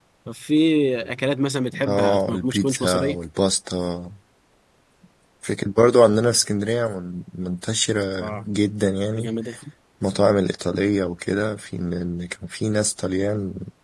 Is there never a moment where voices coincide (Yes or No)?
No